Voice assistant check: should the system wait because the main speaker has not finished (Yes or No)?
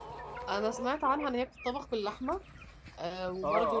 No